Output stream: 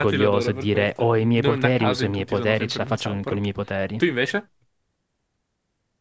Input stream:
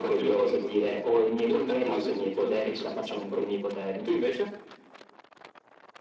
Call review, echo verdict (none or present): present